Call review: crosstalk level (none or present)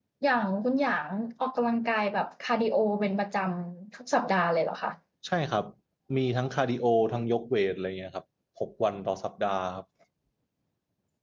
none